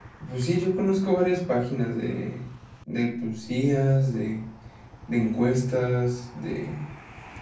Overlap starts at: none

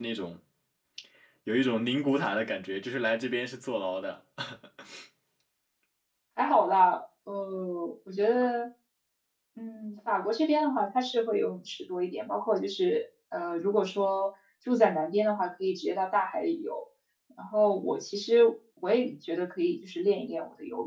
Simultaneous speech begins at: none

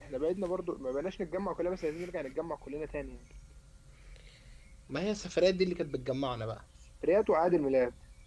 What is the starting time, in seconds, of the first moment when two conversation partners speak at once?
none

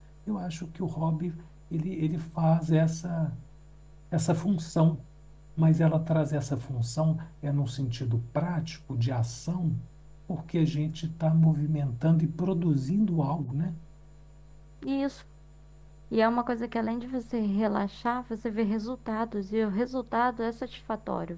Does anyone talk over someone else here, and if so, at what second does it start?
none

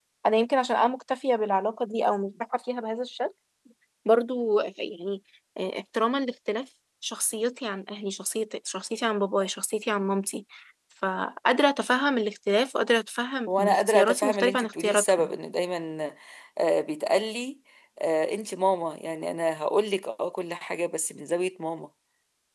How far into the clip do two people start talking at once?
13.5 s

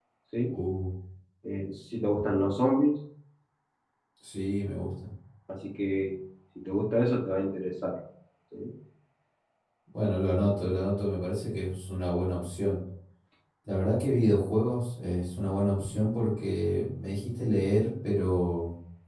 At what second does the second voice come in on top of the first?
none

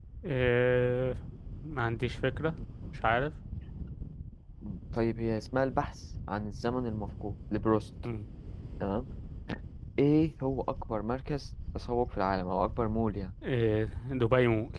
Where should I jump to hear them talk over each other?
none

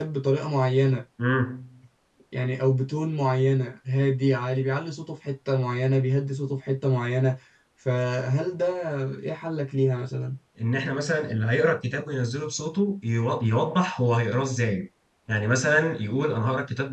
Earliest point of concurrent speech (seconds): none

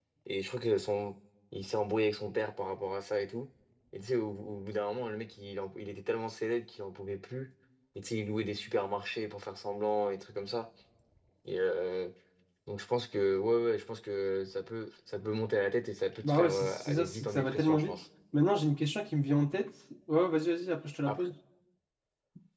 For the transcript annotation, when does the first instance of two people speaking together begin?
16.2 s

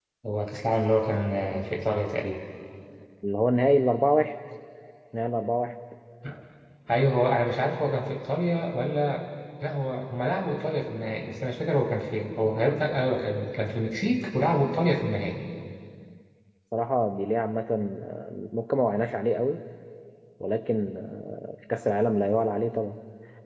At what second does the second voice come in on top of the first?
none

